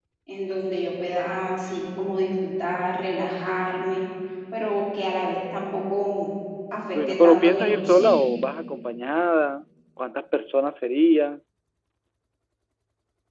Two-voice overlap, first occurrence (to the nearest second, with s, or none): 7 s